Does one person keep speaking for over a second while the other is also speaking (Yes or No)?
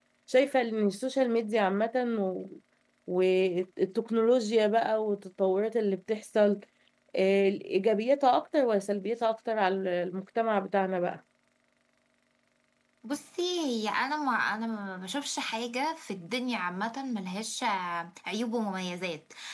No